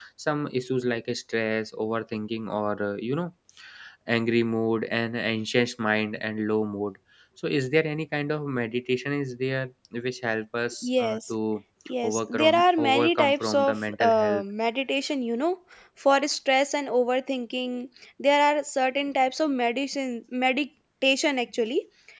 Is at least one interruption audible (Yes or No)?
Yes